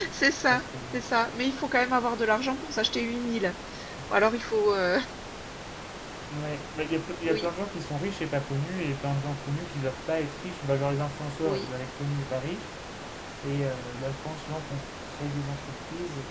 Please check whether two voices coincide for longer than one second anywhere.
No

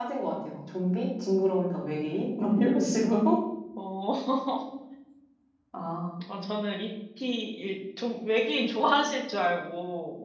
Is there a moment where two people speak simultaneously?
No

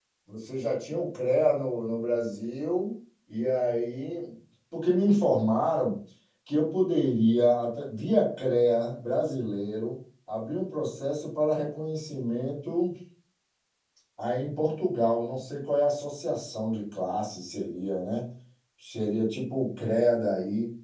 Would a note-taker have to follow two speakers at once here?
No

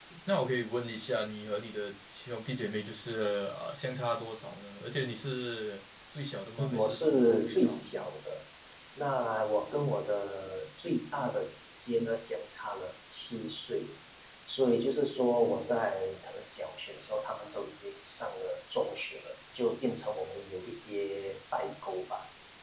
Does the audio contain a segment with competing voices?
Yes, from 6.6 s

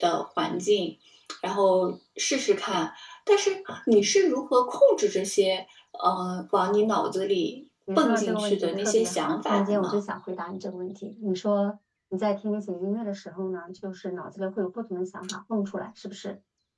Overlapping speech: Yes, from 7.9 s

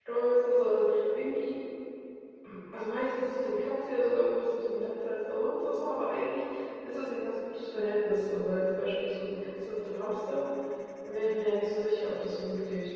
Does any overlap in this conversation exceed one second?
No

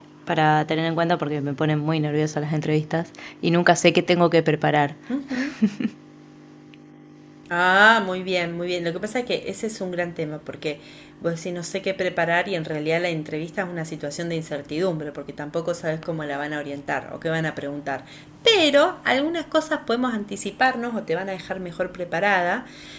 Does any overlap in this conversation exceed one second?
No

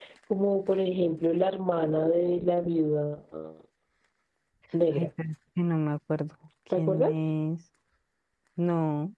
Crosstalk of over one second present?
No

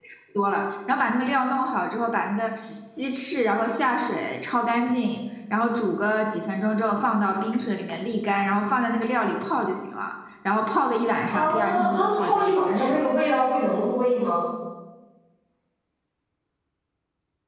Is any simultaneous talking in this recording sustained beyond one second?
Yes, from 11.3 s

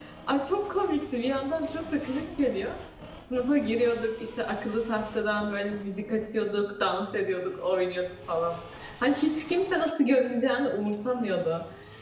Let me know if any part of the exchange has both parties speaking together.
No

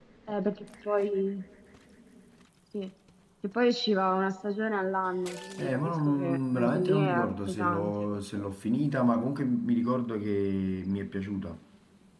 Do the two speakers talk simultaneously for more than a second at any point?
Yes, from 5.6 s

